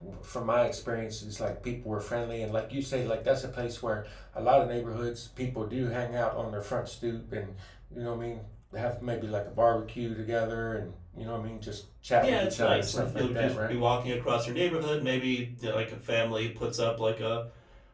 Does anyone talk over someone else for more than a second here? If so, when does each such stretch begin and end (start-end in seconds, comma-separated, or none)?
12.2-13.8